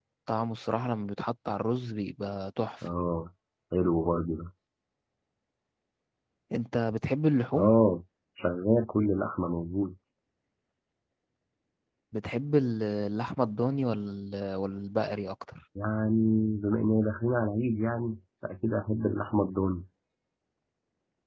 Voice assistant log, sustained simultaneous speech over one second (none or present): none